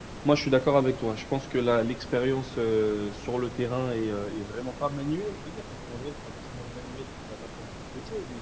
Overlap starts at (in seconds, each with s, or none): none